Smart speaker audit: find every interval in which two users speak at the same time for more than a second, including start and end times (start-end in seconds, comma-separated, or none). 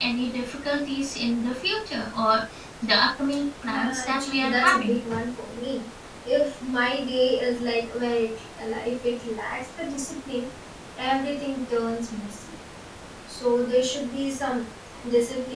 3.7-5.0